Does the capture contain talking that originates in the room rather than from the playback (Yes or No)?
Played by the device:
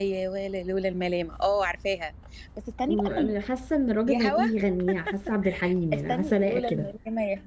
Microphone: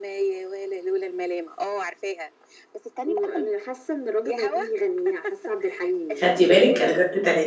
Yes